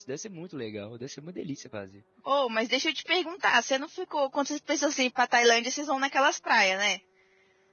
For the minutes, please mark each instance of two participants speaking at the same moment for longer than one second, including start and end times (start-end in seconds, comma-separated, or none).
none